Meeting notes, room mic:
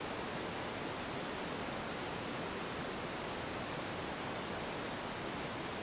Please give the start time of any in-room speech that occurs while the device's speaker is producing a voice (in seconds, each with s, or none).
none